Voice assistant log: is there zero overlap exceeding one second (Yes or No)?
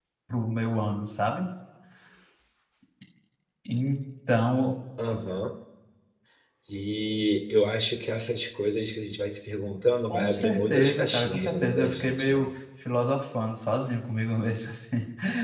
No